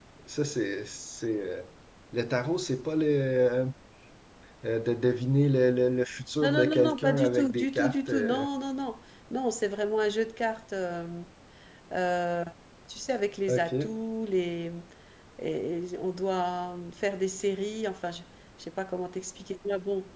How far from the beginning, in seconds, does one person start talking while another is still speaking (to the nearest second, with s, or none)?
6 s